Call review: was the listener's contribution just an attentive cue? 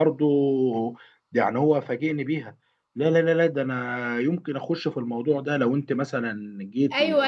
No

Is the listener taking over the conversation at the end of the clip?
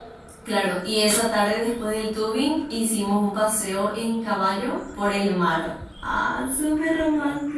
No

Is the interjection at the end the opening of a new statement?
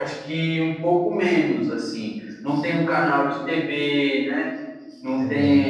No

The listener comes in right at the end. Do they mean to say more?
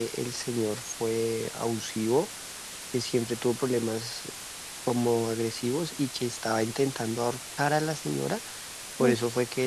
No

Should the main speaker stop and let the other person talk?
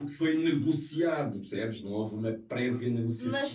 Yes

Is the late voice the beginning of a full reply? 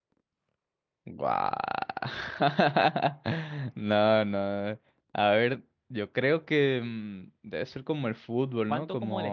Yes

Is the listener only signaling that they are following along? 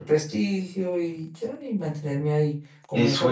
No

